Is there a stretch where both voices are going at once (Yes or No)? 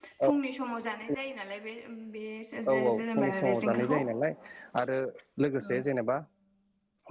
Yes